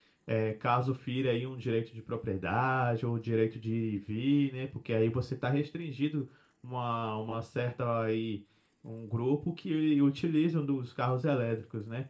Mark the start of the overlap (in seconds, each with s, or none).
none